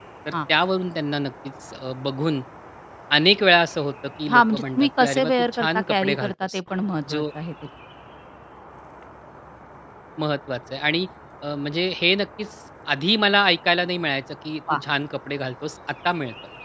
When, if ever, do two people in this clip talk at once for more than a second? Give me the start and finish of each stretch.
4.3-6.6

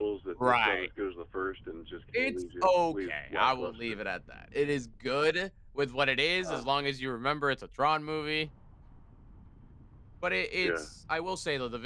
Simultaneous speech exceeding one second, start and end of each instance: 2.2-3.8

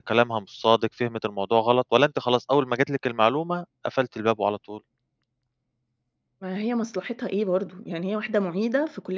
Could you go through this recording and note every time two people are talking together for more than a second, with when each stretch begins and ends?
none

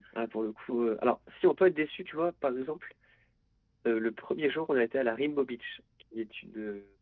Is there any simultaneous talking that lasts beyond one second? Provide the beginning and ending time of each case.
none

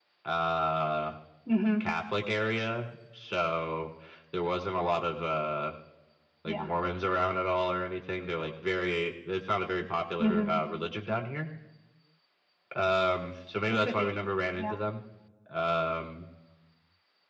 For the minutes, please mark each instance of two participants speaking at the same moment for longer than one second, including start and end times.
none

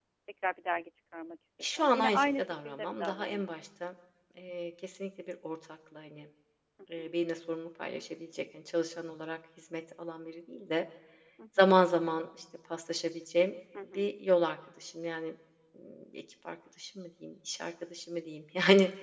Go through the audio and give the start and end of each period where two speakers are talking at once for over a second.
1.8-3.4

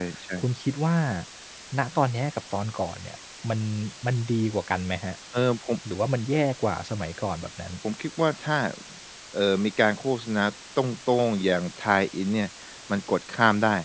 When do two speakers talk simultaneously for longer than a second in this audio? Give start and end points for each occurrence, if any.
none

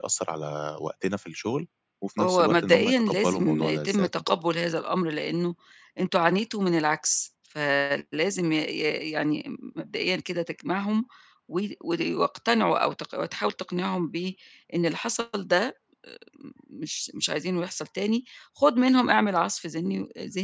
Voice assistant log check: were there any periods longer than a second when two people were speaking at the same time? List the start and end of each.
2.2-4.3

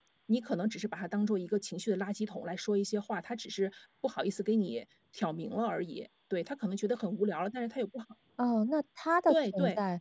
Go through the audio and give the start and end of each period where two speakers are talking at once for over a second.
none

